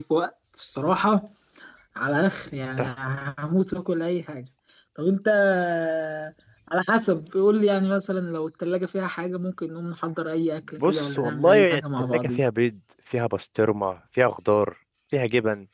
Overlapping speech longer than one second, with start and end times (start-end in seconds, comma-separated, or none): 10.8-12.5